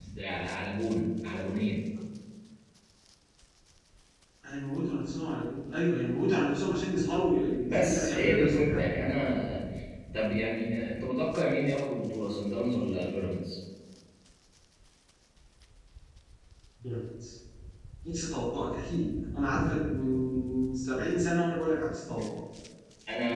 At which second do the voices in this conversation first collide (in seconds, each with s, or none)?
7.7 s